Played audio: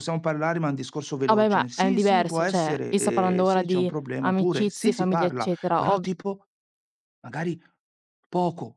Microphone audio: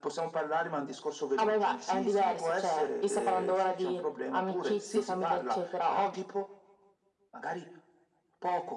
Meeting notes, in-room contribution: none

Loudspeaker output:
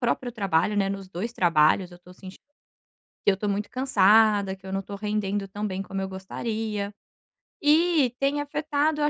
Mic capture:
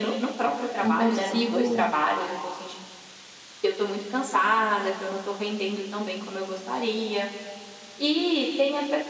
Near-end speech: present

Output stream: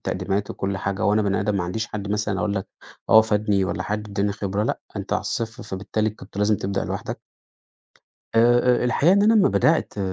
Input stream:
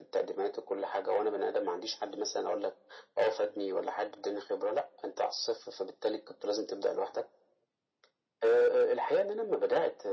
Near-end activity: none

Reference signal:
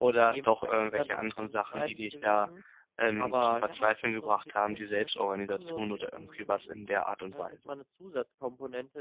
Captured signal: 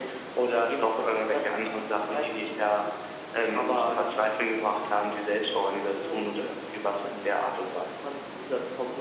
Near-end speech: none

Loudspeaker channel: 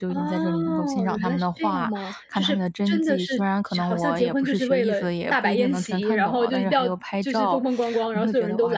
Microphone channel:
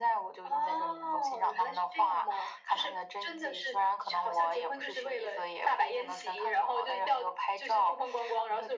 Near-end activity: none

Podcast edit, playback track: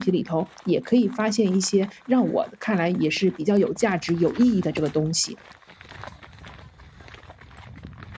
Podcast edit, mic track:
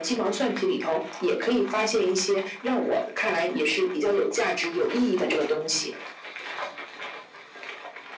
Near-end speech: none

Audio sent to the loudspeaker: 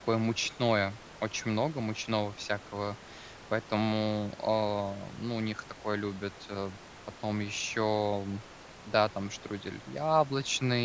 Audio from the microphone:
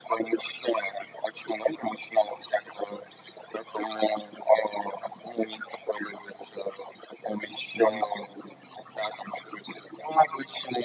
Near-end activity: present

